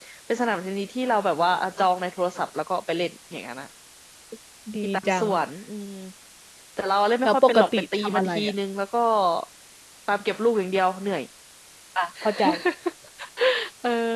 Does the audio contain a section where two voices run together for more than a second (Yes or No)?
Yes